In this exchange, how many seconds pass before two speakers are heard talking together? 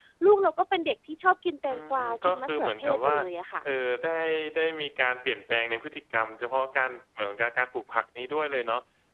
1.7 s

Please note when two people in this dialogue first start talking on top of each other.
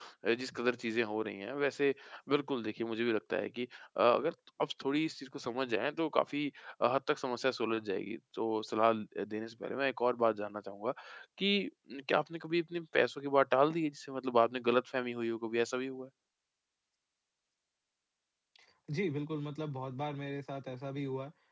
none

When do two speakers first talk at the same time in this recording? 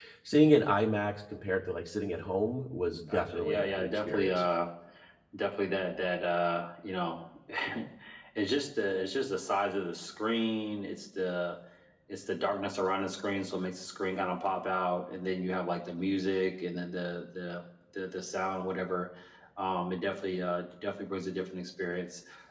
3.1 s

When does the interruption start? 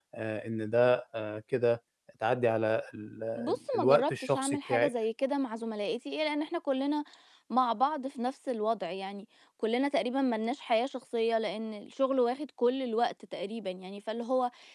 3.4 s

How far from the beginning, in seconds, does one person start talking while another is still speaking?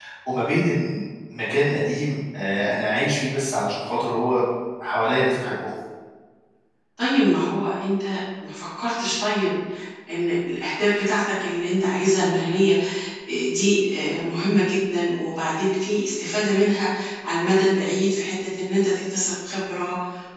none

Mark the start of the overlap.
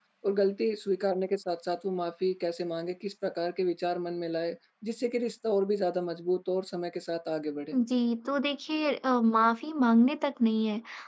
none

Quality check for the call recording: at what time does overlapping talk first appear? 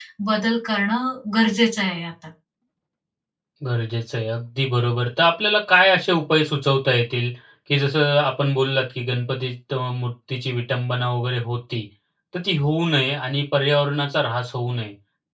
none

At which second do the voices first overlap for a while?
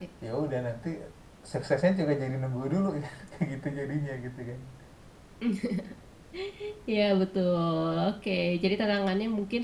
none

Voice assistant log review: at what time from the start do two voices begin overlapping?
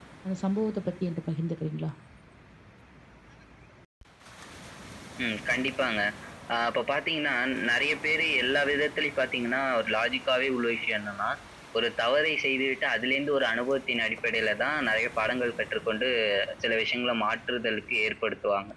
none

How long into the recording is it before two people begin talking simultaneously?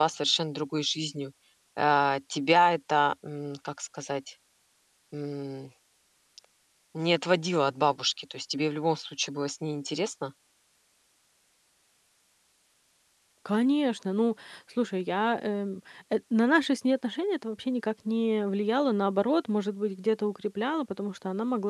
none

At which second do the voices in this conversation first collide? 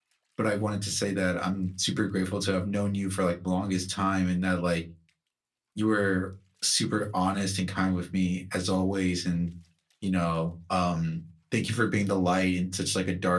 none

